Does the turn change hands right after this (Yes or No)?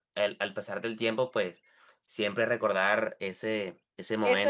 Yes